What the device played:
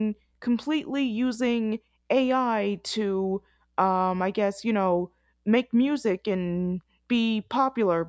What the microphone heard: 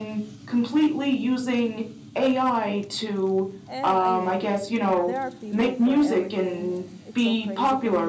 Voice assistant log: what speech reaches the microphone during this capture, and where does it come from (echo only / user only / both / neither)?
both